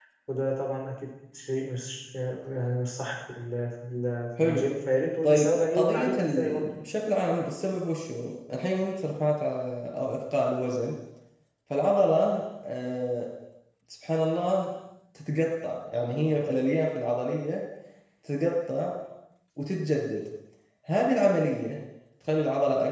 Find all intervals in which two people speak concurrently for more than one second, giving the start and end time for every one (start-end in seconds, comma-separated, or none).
5.2-6.7